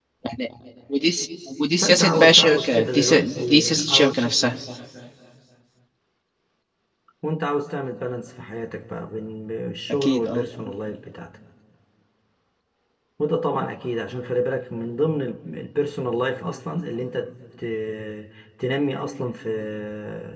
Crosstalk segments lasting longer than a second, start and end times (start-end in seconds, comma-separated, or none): 1.8-4.1